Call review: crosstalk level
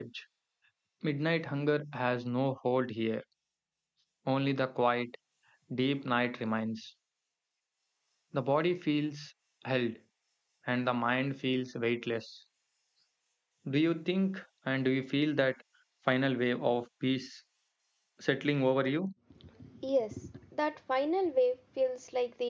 none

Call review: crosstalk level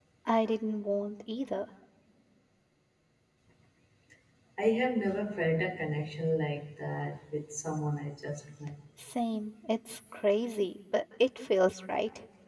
none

